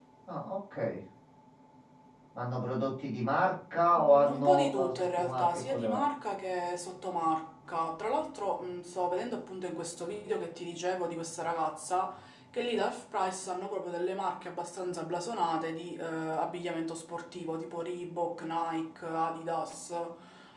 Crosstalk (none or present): present